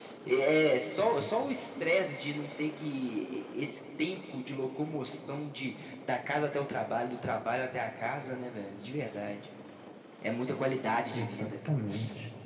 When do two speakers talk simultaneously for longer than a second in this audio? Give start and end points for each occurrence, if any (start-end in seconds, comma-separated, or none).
none